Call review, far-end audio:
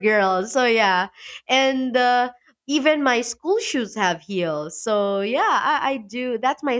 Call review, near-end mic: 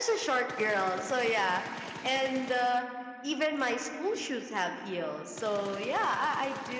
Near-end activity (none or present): none